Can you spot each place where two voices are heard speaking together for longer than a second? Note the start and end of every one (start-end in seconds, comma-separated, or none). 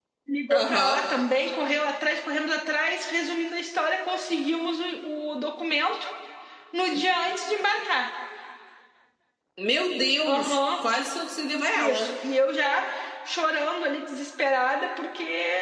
none